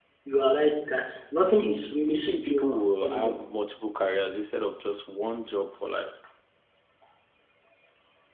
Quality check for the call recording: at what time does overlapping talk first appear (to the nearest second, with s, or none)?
2 s